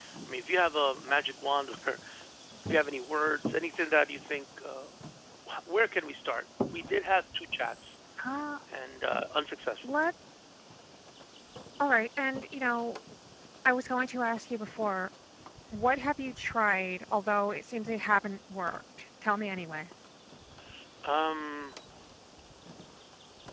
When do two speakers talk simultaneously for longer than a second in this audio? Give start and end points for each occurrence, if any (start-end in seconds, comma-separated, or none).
none